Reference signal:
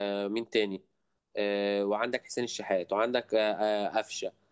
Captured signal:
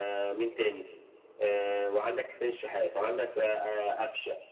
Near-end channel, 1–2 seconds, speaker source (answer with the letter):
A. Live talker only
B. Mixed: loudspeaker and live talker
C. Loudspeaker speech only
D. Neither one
C